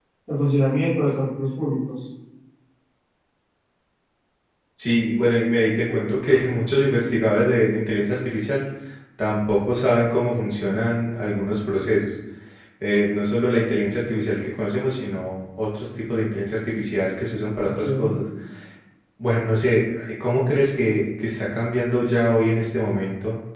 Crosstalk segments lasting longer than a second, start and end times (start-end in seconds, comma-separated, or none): none